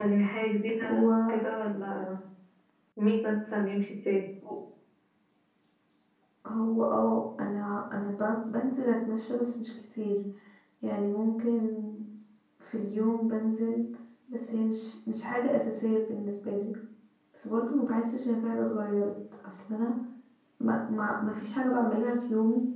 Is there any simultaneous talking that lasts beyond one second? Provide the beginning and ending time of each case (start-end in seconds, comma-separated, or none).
none